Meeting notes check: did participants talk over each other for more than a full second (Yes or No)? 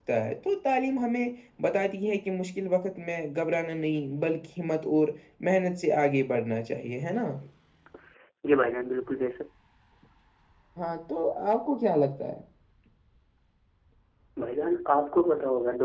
No